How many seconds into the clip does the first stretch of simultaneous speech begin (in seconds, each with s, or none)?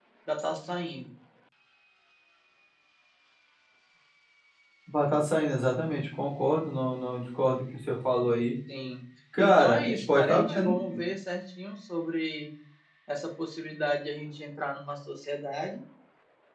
9.4 s